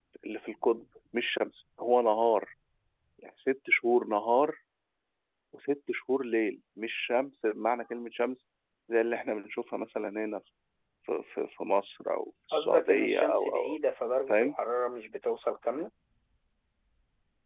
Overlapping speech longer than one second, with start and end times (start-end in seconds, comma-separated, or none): 12.5-13.8